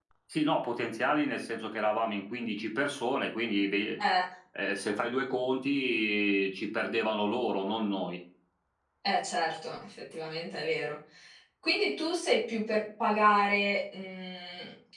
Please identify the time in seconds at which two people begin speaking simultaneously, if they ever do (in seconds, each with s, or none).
none